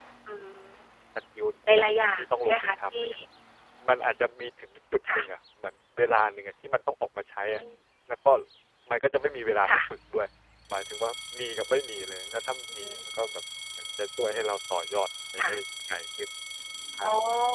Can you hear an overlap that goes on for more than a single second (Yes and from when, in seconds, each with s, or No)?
Yes, from 1.8 s